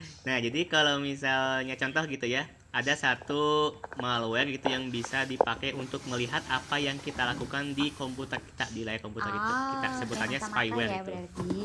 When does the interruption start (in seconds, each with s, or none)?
9.2 s